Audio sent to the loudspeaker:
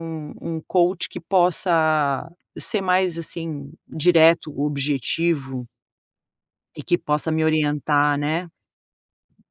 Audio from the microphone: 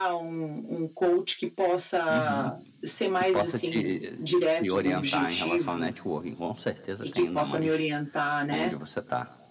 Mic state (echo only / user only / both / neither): both